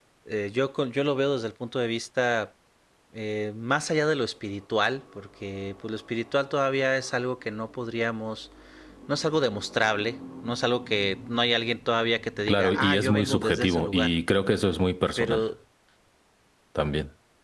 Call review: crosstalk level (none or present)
present